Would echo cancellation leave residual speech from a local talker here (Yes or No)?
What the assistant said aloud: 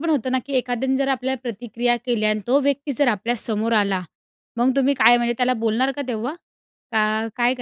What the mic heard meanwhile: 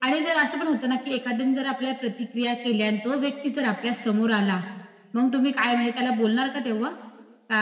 No